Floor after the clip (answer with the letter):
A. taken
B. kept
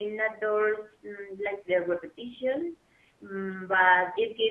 B